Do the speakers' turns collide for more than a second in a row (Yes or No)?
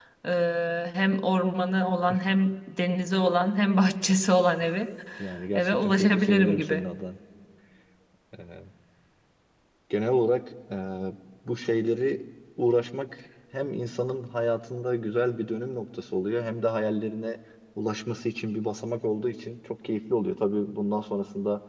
Yes